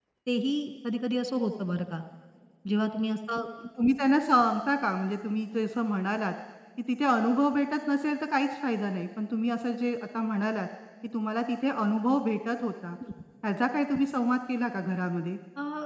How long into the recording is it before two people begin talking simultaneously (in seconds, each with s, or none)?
none